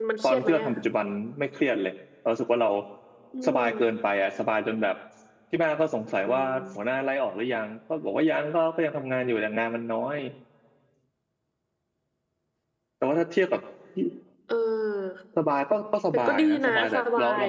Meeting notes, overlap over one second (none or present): present